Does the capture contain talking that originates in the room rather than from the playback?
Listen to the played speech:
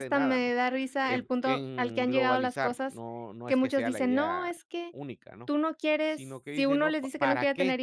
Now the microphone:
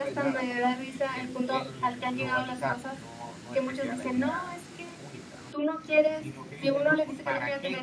No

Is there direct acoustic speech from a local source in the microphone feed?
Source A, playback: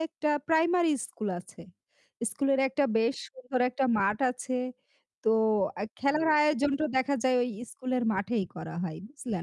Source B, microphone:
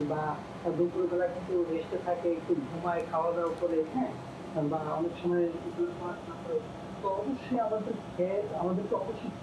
Yes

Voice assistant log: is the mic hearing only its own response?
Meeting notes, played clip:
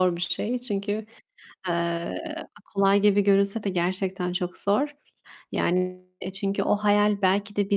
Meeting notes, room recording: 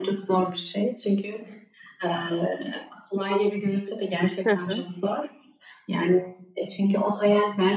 No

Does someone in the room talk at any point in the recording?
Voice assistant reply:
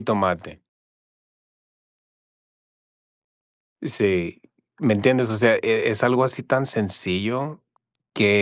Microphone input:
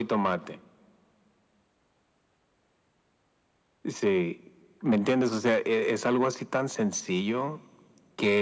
No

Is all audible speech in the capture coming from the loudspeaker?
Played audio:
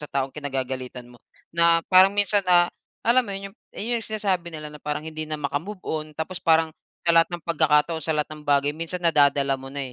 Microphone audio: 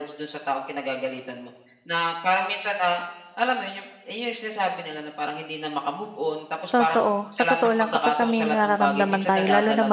No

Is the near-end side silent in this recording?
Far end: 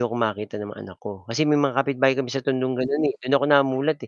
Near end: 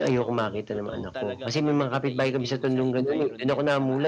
No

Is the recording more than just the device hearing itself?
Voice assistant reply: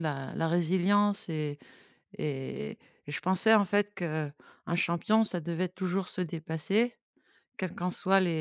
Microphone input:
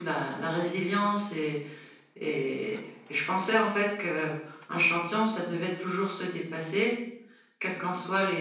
No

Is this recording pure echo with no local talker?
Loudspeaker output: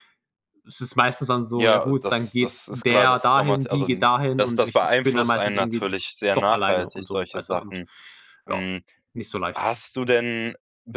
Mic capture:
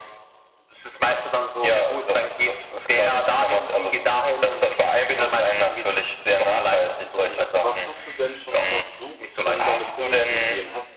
No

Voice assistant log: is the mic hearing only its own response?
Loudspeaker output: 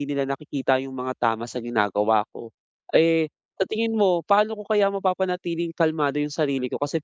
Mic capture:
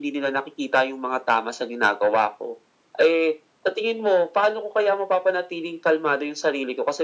Yes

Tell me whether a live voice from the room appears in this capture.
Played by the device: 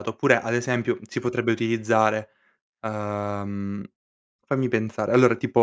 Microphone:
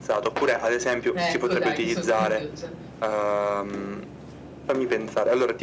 Yes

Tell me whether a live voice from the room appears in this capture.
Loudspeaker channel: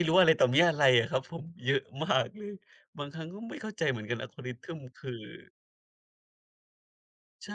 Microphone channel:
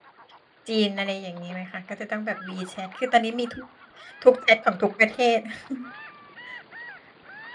Yes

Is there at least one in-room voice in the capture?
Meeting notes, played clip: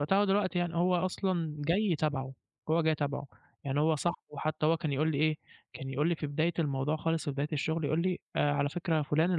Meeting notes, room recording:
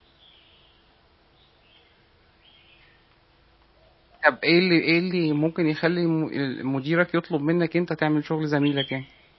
Yes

